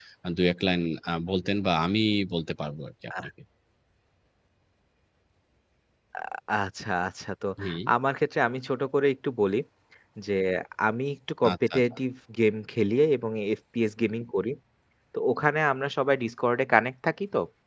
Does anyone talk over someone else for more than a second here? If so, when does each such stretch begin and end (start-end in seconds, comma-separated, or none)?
none